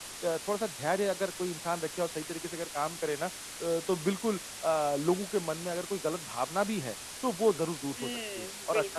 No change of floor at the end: No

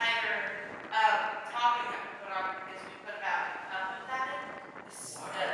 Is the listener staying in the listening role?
No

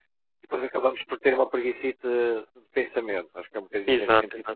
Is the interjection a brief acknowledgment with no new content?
Yes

